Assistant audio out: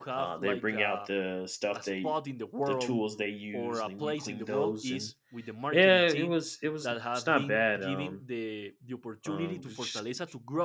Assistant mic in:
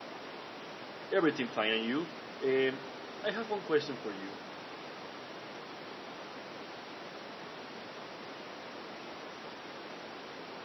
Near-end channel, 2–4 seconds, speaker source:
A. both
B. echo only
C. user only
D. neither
C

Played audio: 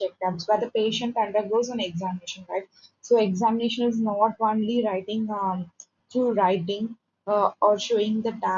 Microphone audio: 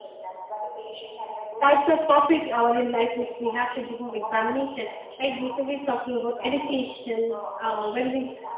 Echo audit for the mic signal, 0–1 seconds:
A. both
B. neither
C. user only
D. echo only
D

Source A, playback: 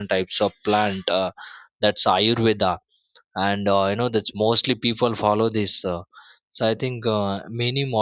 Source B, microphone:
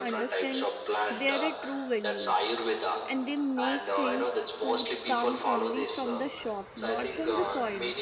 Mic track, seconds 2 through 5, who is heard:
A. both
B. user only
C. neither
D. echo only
A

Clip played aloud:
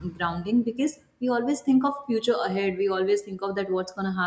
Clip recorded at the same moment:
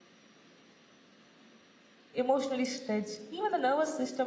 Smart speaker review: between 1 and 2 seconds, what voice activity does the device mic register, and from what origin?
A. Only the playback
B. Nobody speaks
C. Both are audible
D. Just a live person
B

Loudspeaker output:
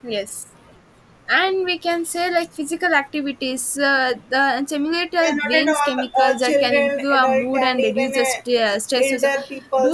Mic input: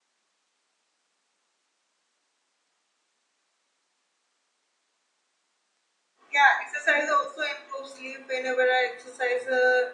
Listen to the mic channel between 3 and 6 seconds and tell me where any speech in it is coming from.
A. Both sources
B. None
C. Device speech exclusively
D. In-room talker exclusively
B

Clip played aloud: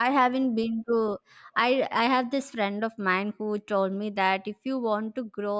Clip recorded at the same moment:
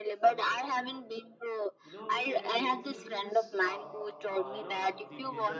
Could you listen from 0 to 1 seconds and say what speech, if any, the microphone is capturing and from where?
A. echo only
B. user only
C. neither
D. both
D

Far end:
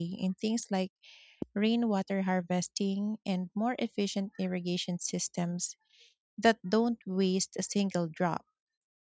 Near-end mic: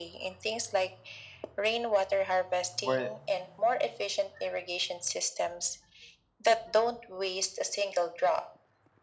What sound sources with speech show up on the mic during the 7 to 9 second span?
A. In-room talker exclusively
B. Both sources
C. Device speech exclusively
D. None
C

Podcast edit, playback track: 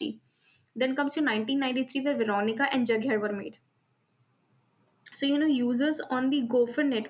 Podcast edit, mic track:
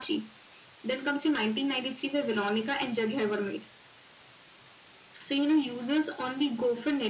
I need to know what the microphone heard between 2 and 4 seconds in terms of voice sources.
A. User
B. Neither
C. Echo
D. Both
C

